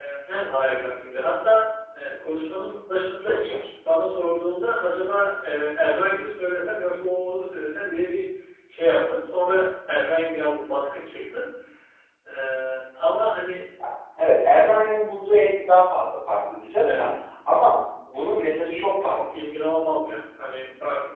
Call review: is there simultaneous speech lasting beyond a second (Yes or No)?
No